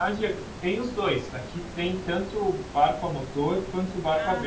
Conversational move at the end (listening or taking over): listening